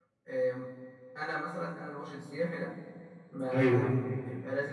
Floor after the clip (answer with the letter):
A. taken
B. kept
B